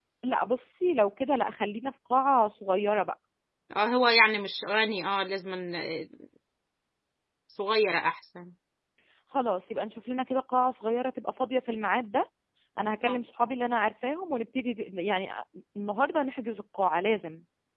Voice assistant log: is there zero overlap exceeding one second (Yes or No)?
Yes